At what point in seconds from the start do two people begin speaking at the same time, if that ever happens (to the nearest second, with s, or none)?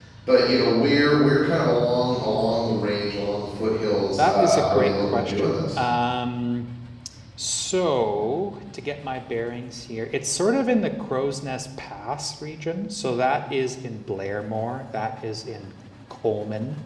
4 s